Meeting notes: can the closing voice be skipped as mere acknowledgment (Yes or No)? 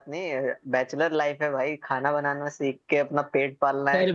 No